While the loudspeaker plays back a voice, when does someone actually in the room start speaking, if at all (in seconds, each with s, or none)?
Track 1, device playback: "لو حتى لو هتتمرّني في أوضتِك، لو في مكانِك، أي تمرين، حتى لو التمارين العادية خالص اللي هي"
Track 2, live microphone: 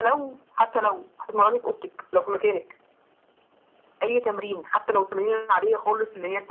none